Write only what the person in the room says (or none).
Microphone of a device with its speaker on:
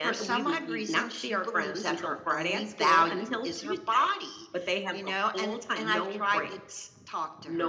none